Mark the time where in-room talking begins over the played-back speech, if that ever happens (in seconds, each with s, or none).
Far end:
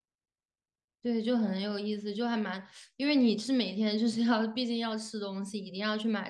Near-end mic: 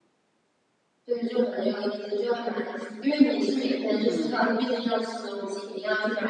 4.0 s